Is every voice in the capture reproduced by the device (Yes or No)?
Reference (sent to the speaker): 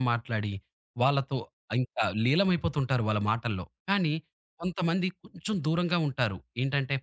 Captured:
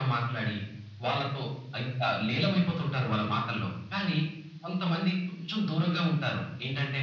Yes